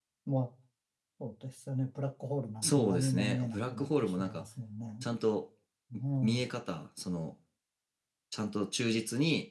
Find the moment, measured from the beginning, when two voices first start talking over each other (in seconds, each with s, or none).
2.6 s